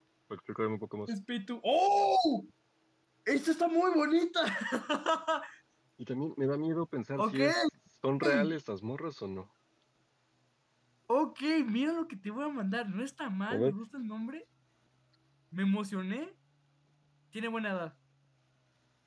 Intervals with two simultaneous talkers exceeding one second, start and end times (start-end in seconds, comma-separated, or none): none